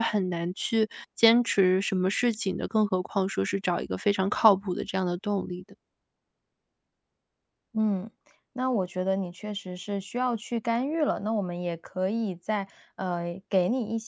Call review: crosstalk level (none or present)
none